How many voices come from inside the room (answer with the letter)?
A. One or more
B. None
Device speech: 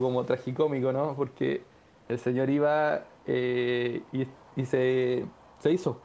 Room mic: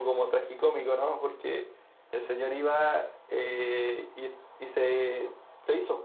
B